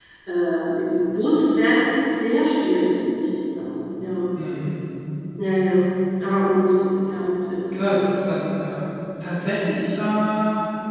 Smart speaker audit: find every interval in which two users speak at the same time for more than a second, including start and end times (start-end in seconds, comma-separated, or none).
none